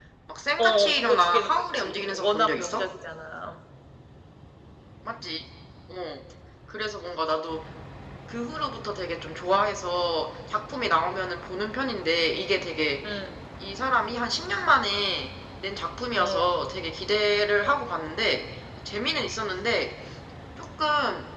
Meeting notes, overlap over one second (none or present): present